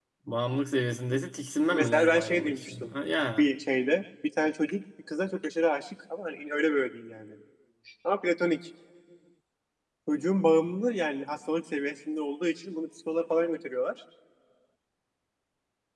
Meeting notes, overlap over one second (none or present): present